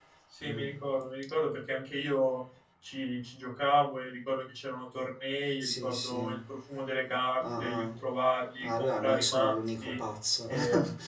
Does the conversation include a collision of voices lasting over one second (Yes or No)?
Yes